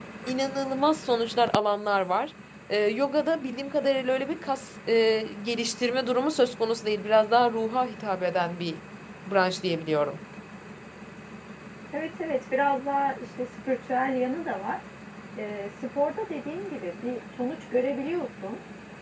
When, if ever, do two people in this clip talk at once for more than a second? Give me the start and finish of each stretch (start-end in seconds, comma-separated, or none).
none